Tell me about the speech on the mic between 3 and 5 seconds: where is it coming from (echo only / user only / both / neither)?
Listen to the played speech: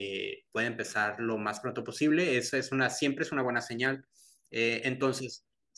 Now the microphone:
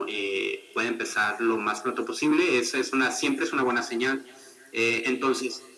echo only